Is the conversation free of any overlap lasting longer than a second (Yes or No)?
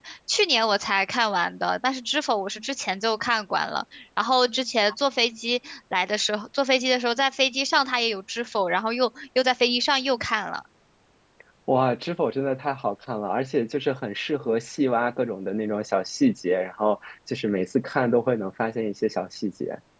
Yes